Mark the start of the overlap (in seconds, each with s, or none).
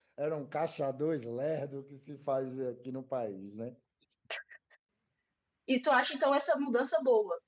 none